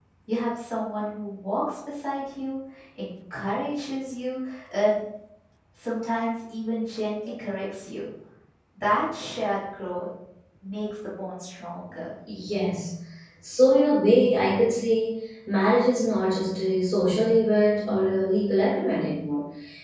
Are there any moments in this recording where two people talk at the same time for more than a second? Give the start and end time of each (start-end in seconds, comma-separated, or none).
none